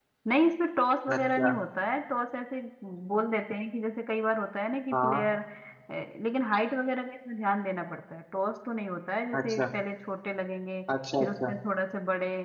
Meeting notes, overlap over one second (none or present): none